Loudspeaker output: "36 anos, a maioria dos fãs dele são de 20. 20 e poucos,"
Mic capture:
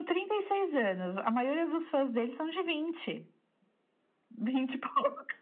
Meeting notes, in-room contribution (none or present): none